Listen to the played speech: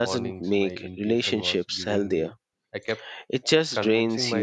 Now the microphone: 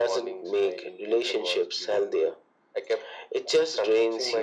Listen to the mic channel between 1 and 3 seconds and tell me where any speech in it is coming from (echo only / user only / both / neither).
echo only